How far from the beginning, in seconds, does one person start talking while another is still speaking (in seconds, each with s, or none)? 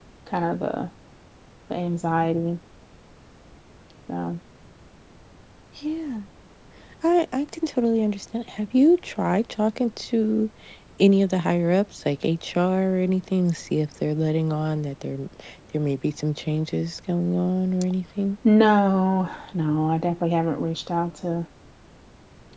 none